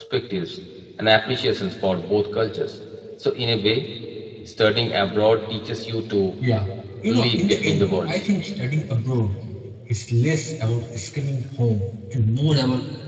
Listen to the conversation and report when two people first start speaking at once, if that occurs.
7 s

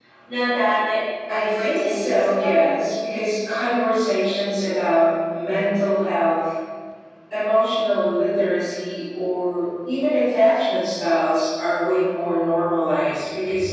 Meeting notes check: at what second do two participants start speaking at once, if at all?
1 s

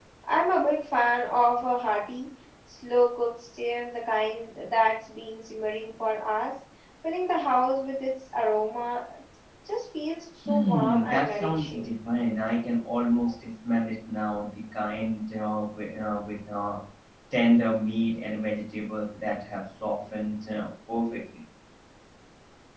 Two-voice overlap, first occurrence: 10 s

